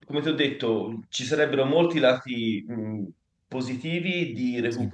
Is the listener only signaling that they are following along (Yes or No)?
Yes